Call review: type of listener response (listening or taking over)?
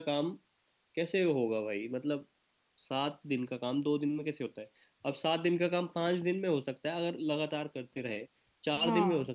listening